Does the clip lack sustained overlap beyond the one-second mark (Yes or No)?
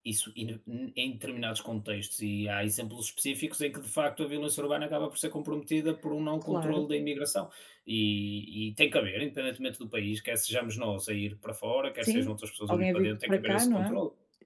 No